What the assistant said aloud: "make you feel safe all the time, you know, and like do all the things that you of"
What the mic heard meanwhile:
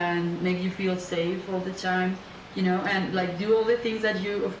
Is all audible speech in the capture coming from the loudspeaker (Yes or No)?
Yes